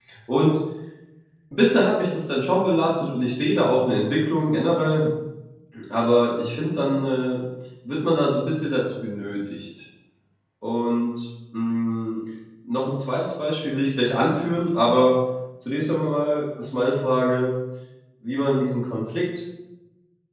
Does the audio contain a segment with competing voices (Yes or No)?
No